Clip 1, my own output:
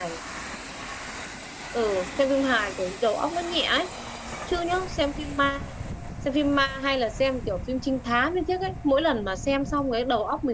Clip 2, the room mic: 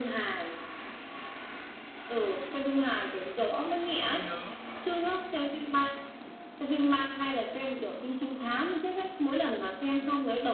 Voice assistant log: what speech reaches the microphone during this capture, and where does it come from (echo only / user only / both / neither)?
both